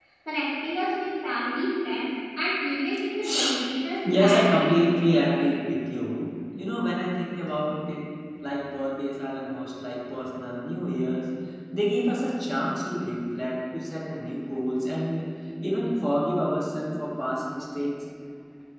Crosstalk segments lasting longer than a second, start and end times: 4.2-5.4

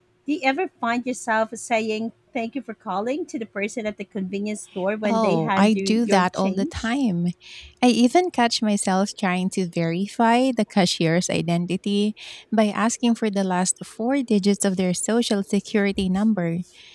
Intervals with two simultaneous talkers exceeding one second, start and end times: 5.0-6.9

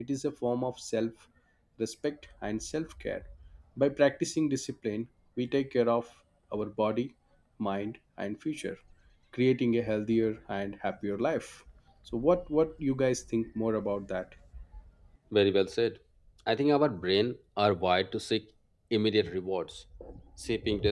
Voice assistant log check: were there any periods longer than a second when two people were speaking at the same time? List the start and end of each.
none

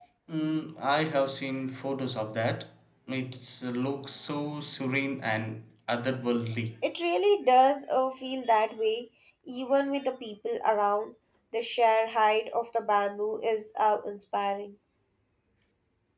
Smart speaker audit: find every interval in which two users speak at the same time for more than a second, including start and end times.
none

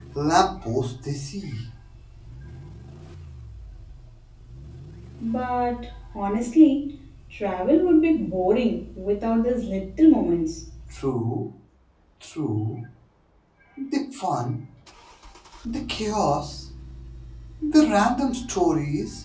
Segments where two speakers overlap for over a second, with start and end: none

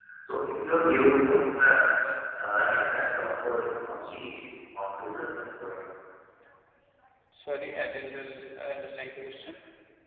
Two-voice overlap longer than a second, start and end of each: none

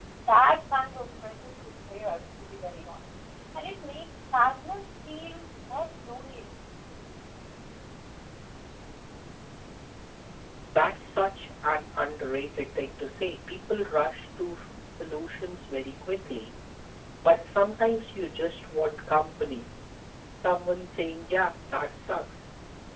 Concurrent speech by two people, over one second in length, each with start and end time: none

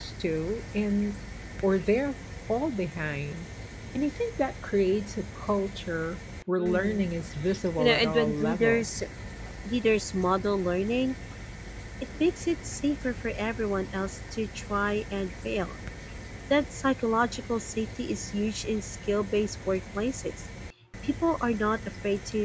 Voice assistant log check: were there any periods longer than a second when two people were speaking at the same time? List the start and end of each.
7.8-9.0

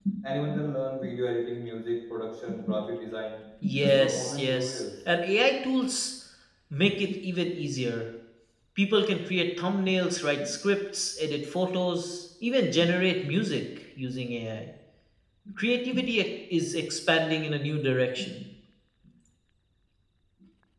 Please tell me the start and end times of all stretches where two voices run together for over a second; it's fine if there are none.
3.6-4.8

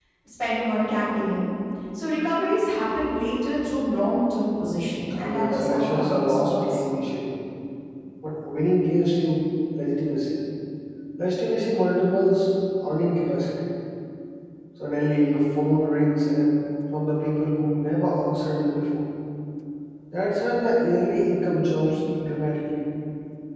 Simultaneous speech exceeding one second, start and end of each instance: 5.2-6.8

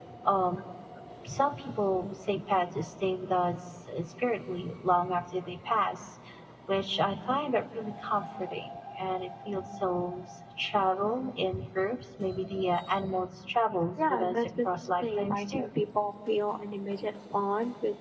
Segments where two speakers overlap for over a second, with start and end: 14.1-15.7

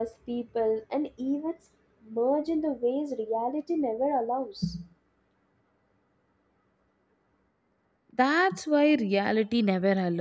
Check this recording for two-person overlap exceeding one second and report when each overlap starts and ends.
none

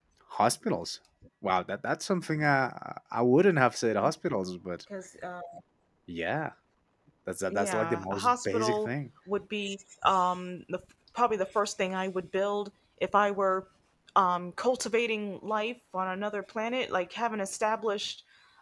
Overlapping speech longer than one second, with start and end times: 7.5-8.9

